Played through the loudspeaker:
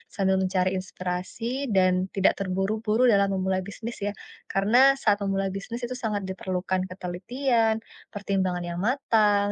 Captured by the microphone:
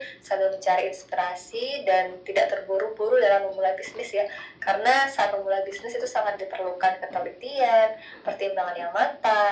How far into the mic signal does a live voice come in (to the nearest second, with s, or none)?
none